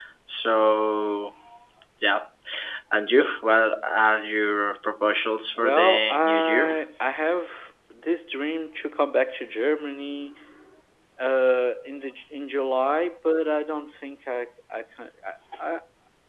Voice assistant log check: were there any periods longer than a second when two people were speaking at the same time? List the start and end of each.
5.6-6.8

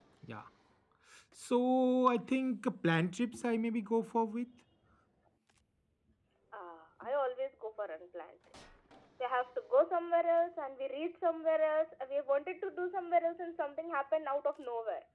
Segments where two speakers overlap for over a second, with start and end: none

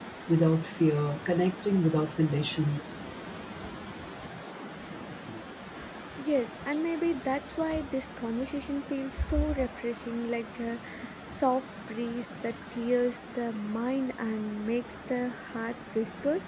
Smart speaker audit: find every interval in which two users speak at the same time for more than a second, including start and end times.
none

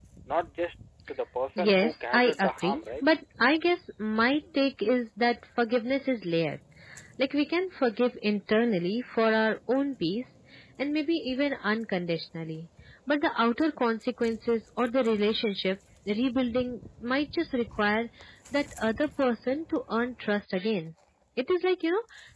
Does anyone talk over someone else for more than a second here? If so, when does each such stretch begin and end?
1.6-3.0

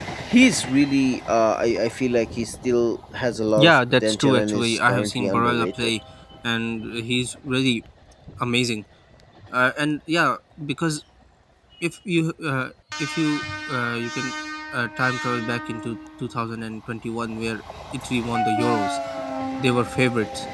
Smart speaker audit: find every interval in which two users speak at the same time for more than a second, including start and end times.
3.6-5.9

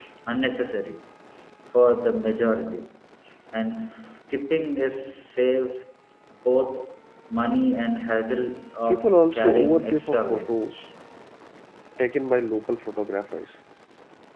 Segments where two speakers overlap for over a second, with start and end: 8.9-10.6

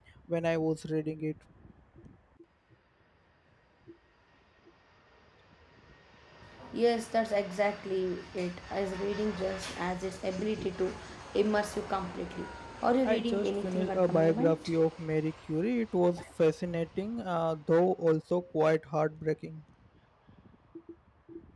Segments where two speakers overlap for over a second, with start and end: 13.1-14.7

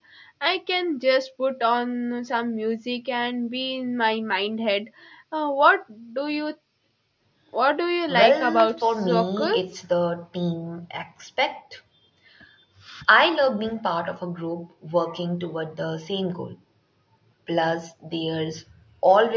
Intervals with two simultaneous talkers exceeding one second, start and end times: 8.1-9.8

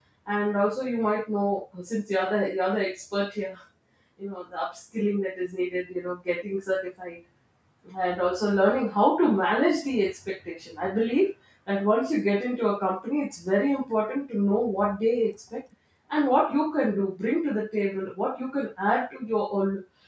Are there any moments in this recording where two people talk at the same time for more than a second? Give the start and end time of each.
none

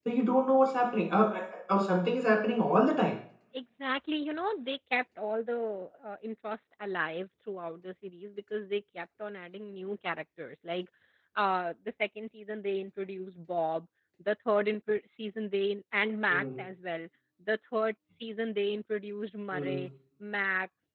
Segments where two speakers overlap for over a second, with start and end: none

